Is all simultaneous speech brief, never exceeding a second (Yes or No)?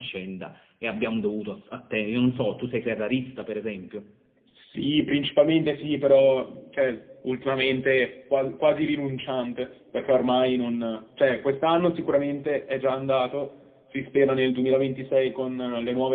Yes